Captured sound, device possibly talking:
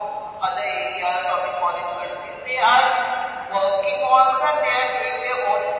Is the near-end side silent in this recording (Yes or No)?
Yes